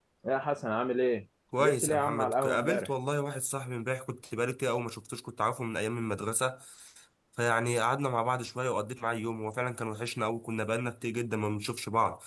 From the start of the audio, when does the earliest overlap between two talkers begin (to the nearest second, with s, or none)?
2 s